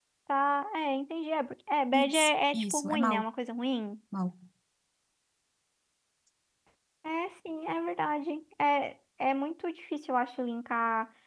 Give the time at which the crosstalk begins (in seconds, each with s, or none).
1.9 s